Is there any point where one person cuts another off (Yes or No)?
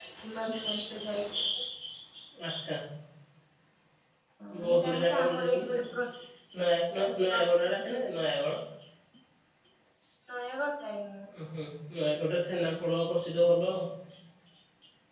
Yes